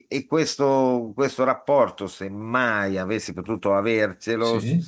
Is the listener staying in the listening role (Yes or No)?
Yes